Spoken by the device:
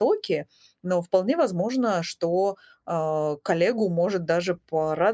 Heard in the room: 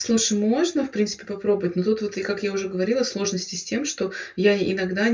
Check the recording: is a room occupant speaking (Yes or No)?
Yes